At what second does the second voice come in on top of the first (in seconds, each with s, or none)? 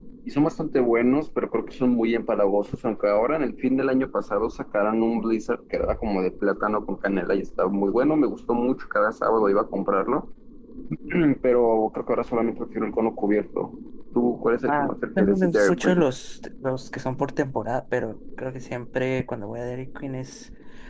14.7 s